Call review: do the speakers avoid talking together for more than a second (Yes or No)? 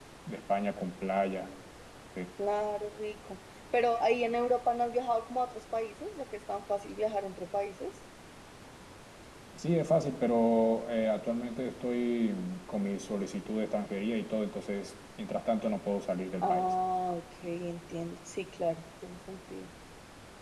Yes